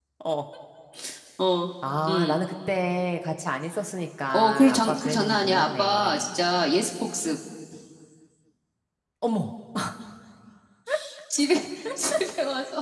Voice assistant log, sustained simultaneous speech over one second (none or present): present